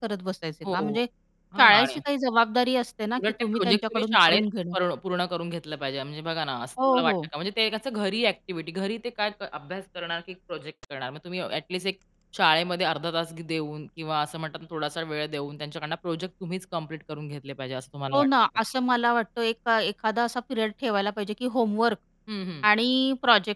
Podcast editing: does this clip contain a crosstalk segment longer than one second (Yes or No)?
Yes